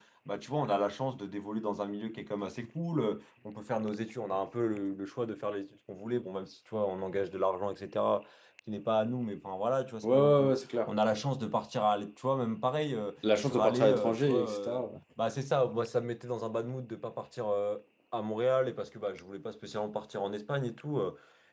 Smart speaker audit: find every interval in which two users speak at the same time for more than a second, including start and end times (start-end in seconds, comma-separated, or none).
13.4-14.8